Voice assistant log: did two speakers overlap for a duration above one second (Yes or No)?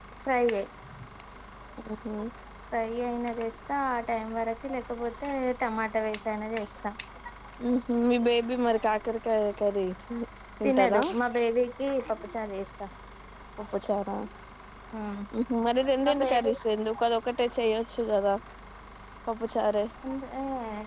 No